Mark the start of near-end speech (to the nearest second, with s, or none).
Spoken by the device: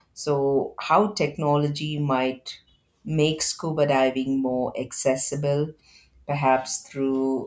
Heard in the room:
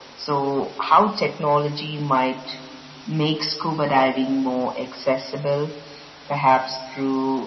none